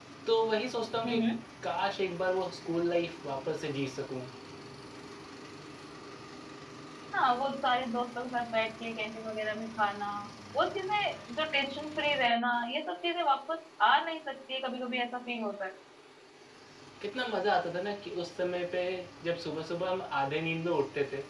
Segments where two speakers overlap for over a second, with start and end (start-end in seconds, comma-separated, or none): none